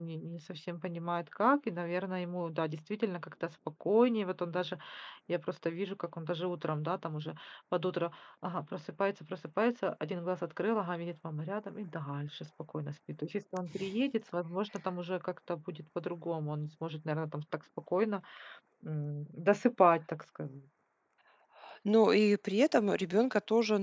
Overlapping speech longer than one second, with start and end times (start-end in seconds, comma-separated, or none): none